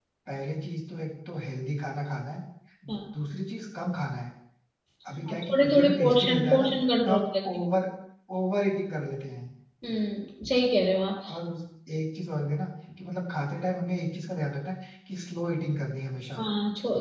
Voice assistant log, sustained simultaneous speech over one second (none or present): present